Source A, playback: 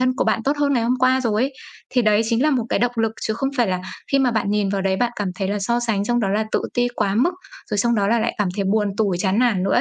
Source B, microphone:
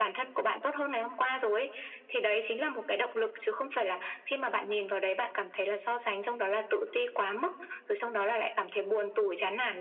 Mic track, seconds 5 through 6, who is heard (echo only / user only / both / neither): echo only